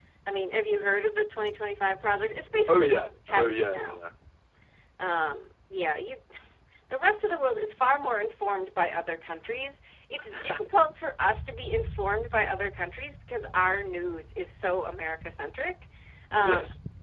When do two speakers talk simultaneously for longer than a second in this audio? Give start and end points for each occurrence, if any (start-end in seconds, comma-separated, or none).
2.7-4.1